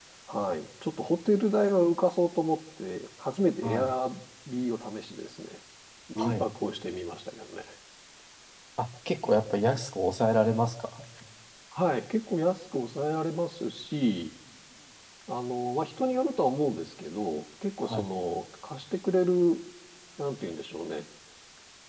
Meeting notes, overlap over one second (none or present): none